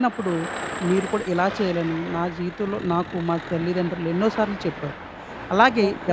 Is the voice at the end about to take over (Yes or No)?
Yes